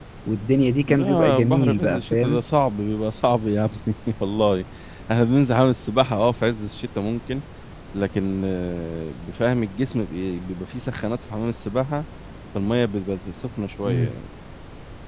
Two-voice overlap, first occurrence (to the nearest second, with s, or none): 1 s